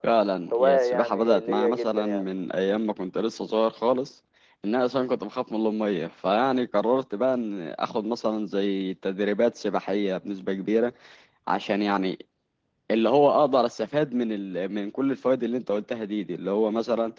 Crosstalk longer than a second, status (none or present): present